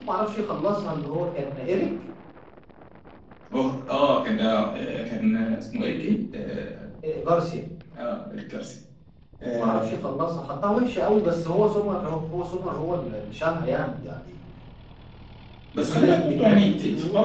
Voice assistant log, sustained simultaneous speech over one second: present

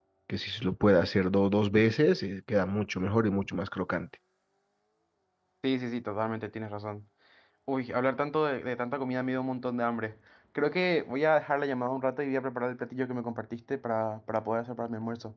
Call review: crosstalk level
none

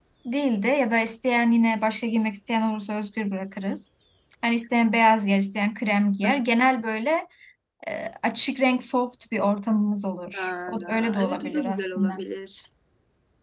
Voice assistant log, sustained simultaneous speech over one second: present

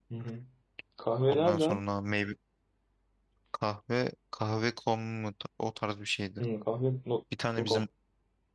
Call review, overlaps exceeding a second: none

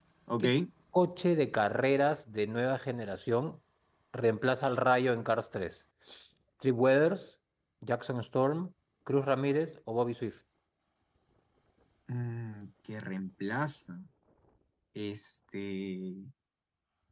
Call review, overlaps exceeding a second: none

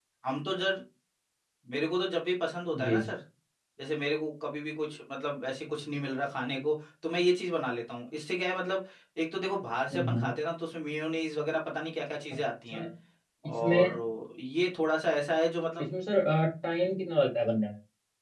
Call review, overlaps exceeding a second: none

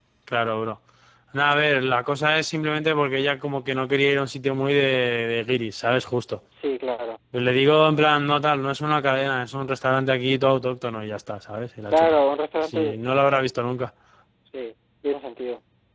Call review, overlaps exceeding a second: none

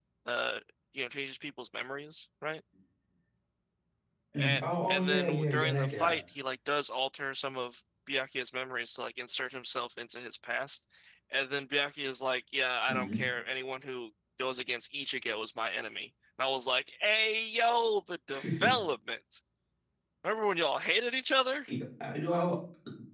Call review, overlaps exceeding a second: present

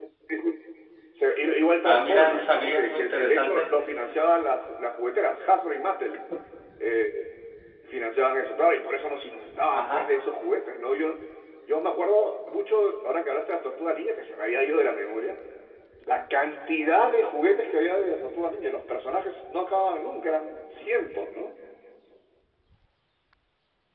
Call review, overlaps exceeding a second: present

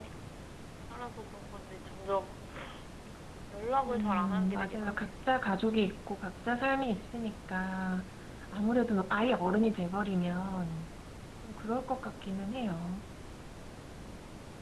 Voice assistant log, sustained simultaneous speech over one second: present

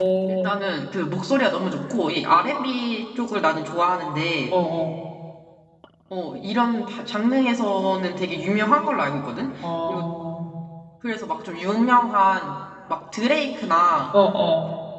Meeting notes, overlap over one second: none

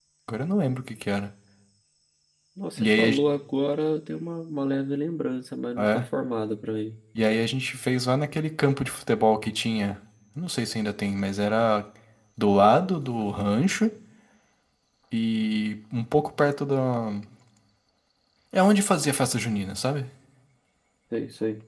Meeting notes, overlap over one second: none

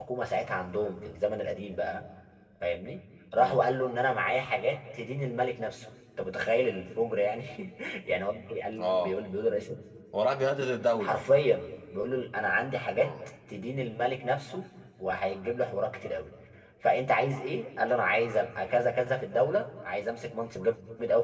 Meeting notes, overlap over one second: none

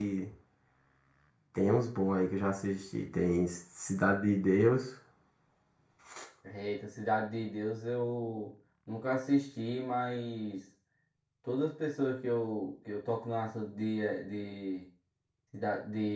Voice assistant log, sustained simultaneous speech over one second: none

